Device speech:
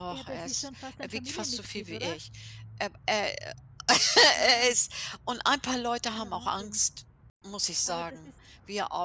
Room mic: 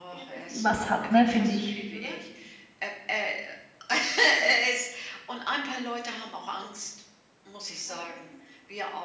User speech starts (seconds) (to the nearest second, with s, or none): 1 s